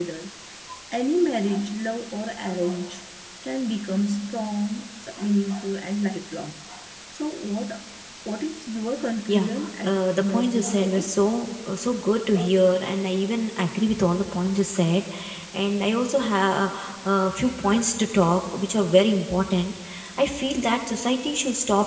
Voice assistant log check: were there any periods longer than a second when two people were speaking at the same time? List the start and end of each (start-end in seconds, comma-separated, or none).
9.9-11.1